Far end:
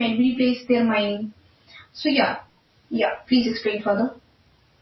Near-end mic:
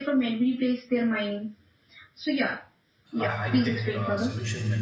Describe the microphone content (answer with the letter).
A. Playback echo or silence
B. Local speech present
B